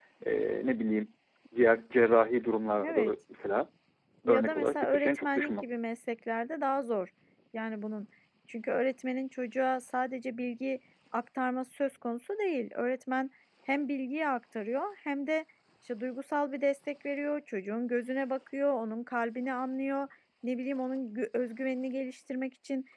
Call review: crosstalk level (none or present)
present